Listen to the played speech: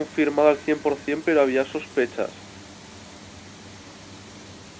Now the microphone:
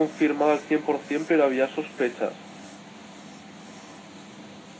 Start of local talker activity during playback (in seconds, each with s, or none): none